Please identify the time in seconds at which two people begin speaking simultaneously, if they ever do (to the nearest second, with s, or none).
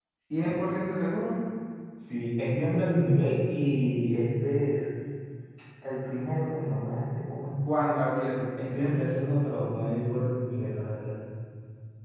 none